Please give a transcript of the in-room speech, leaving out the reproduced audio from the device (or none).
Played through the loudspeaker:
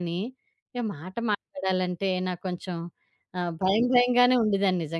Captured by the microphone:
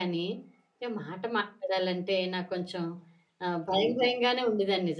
none